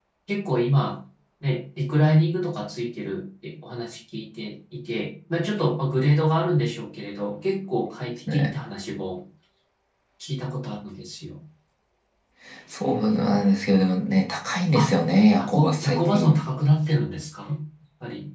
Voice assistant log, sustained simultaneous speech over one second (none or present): present